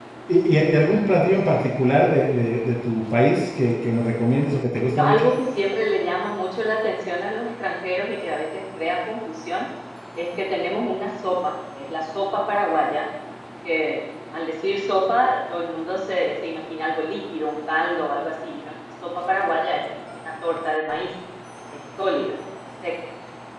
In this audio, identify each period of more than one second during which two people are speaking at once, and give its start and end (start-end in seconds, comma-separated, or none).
none